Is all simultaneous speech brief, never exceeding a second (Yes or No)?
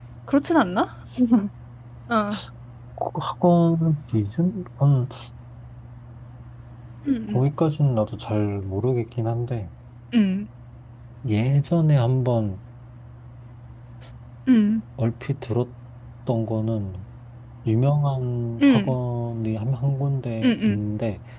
Yes